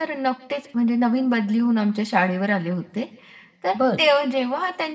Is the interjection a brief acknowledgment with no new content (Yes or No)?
Yes